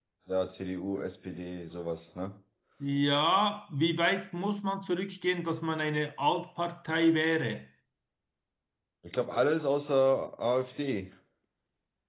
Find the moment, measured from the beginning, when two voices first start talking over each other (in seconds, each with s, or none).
none